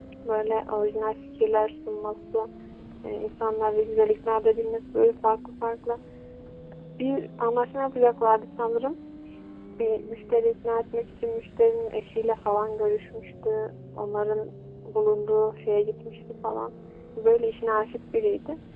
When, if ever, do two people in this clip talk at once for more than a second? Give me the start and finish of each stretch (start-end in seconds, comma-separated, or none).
none